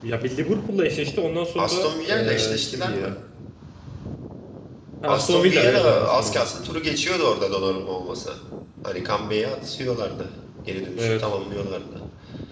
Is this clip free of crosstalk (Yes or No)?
No